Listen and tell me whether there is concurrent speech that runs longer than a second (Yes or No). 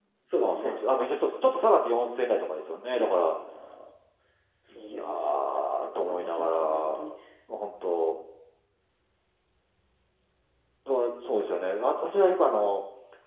Yes